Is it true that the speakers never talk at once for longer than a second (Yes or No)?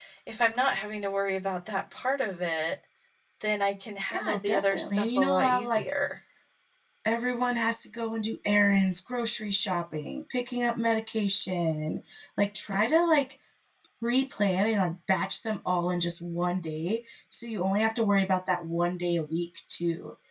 No